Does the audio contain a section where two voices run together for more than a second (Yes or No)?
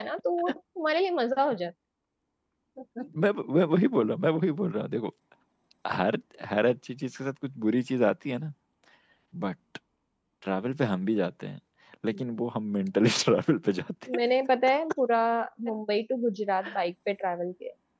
No